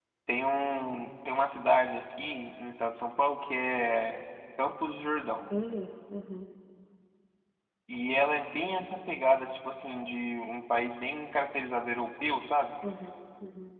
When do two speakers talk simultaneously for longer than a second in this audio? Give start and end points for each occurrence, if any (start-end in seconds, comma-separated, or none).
none